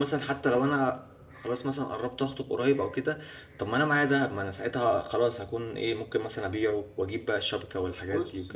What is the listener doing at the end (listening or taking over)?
taking over